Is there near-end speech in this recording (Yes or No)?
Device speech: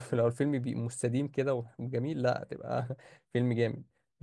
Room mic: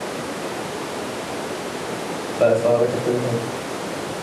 Yes